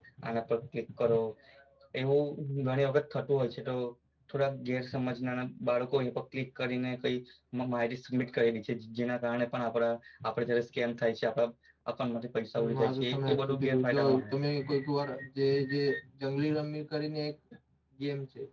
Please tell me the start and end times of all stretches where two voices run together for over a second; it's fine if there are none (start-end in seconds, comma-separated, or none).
12.6-14.3